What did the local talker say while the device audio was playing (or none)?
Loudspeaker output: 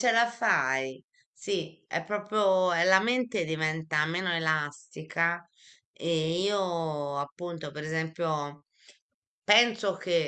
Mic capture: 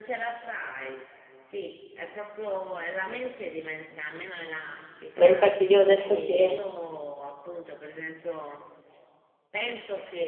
Ma infatti io adesso che